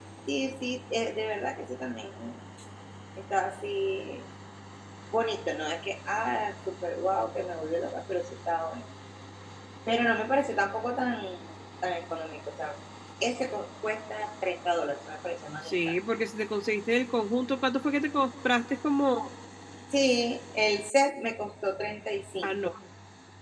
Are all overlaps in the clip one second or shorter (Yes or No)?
Yes